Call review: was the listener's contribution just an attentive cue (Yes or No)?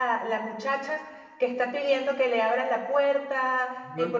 Yes